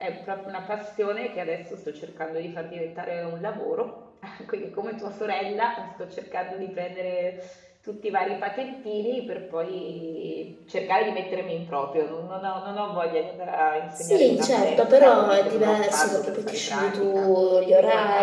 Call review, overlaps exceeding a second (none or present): present